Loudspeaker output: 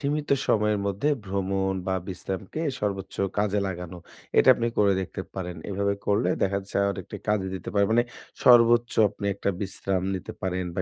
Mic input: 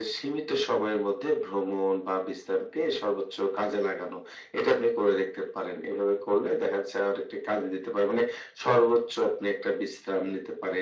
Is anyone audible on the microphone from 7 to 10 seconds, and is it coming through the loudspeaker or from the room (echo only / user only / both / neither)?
echo only